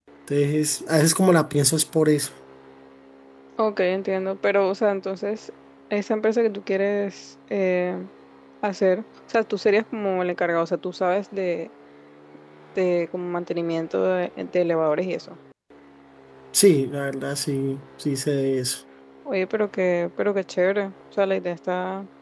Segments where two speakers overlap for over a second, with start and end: none

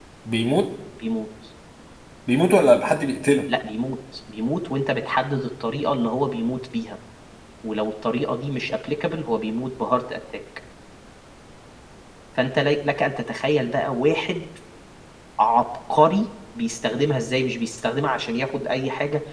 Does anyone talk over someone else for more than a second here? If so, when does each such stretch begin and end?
none

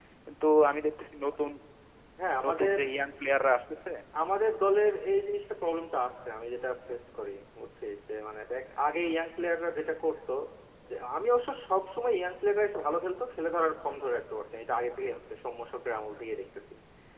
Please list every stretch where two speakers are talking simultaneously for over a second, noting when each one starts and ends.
none

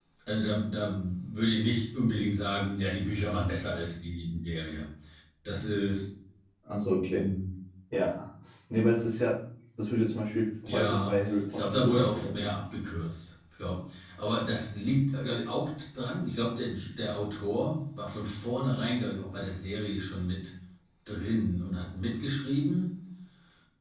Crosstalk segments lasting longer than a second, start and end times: 10.7-12.5

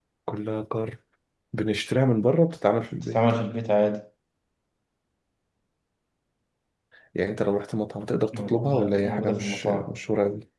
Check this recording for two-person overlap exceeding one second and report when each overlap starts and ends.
8.3-10.0

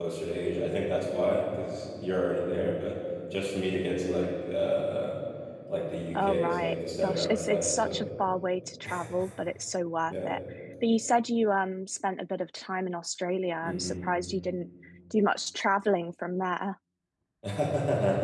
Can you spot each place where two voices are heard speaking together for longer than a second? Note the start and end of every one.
6.2-8.1

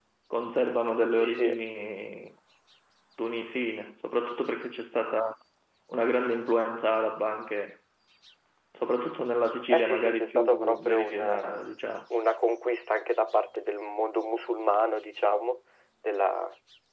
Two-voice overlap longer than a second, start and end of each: 9.7-11.7

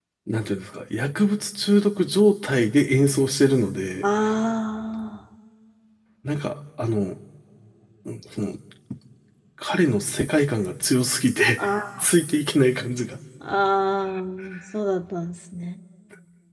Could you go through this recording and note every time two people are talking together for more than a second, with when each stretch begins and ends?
none

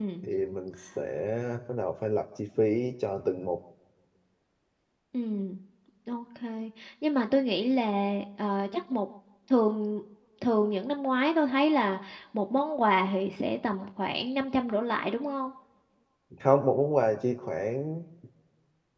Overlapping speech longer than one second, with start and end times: none

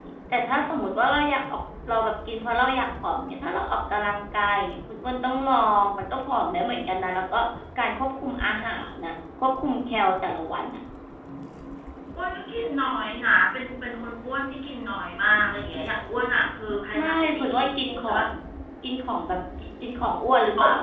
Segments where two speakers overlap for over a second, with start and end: 17.0-18.2

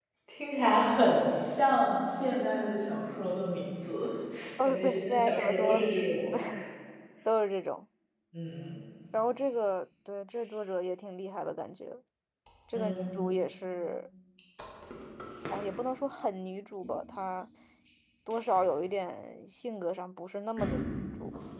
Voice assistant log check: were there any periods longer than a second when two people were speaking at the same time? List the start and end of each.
4.6-5.9

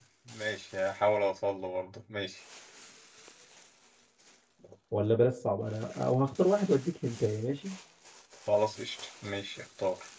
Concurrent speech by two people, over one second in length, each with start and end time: none

